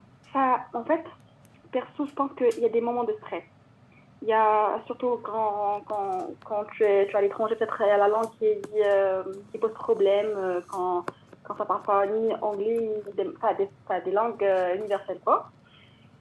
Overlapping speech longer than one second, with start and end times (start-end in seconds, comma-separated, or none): none